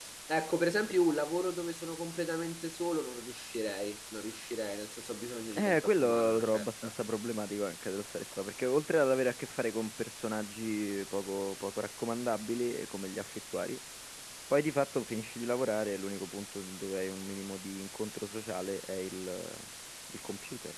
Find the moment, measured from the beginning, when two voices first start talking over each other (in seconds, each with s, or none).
5.5 s